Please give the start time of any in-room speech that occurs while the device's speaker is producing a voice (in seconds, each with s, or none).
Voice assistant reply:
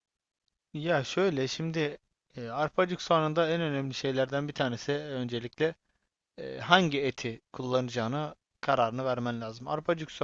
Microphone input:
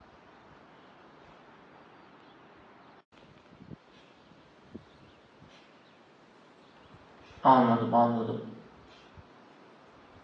7.4 s